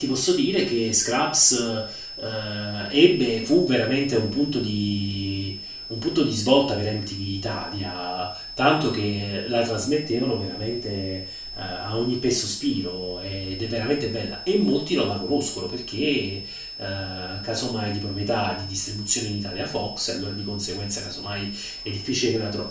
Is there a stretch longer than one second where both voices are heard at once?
No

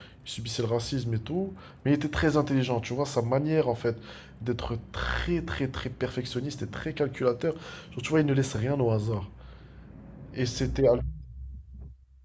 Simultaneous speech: No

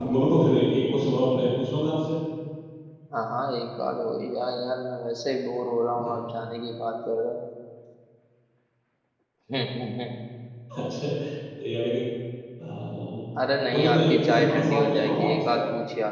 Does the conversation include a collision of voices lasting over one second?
Yes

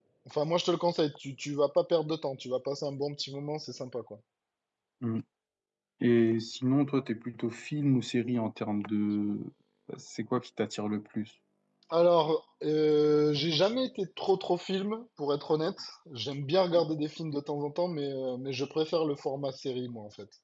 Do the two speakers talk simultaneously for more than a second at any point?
No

